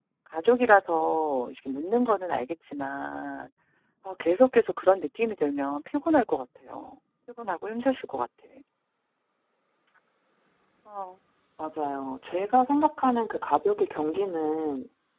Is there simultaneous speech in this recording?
No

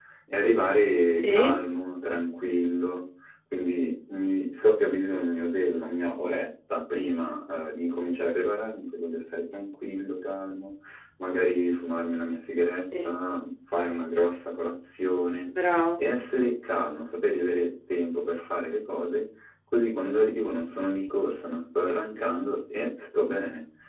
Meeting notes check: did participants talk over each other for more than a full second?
No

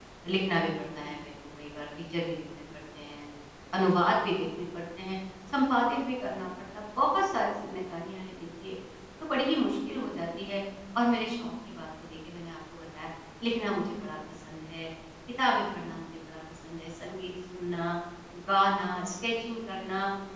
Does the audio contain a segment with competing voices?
No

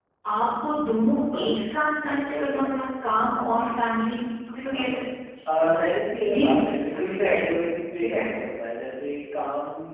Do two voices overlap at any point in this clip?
Yes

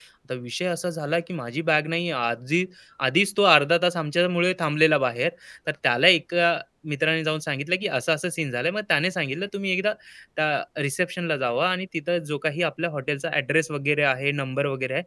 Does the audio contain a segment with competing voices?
No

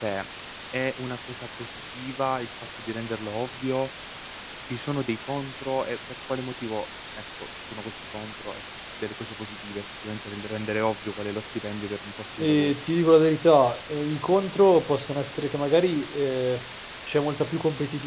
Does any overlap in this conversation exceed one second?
No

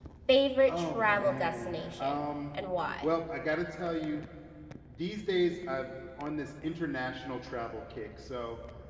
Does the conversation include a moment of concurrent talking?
Yes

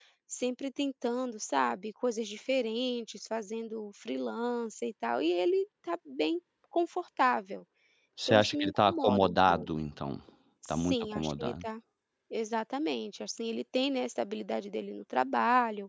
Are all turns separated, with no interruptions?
No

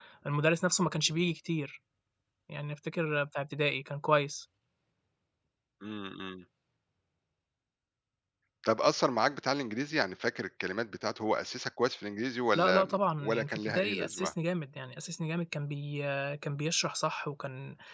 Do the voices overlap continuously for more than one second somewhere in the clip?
Yes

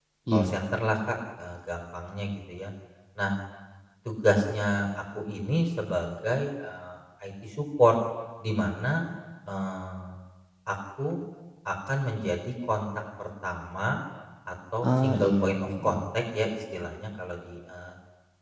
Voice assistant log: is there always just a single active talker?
No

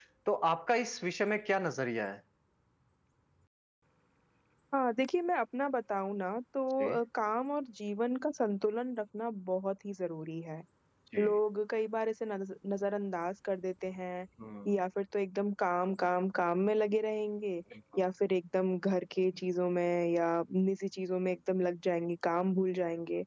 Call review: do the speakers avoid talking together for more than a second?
Yes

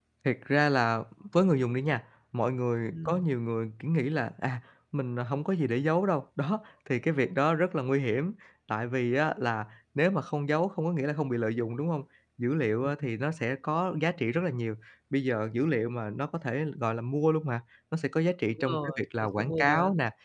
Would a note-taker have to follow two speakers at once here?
Yes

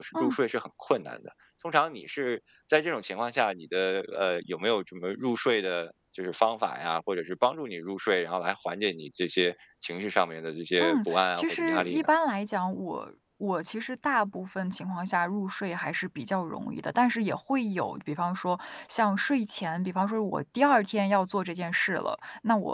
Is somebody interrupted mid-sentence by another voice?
Yes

